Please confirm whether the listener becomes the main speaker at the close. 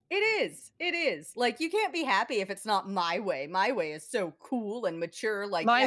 Yes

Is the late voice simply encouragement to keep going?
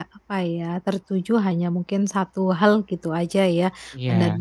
Yes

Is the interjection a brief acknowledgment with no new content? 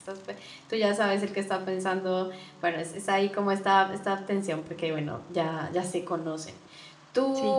Yes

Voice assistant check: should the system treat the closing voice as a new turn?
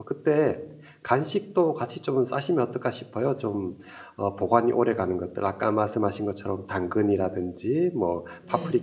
No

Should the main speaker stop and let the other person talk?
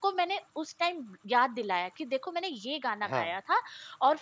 No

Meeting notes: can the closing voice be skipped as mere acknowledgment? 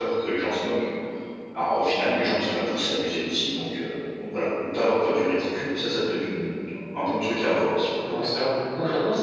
No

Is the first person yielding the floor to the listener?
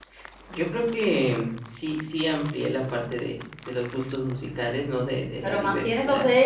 Yes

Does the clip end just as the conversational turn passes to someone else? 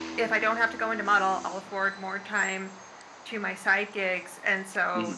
No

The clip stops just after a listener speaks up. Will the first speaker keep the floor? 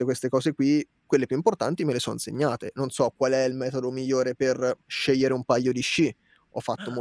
Yes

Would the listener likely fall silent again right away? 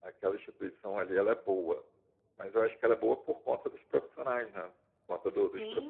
No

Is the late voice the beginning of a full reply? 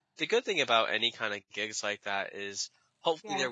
No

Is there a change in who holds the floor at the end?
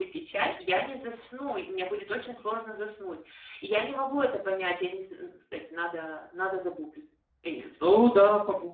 Yes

